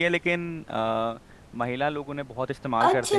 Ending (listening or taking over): taking over